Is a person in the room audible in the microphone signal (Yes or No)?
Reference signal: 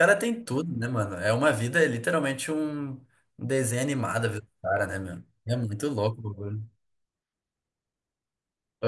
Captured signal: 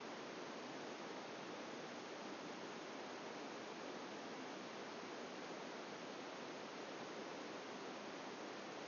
No